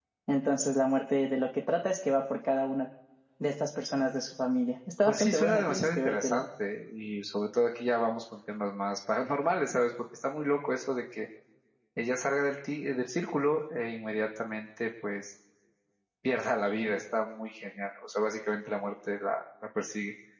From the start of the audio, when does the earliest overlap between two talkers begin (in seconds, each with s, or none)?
5.0 s